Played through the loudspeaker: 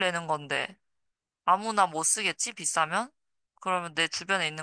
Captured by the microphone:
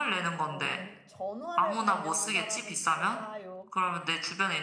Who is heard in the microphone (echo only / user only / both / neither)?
both